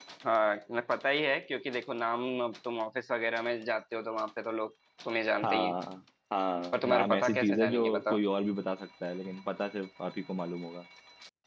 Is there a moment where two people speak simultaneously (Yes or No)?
Yes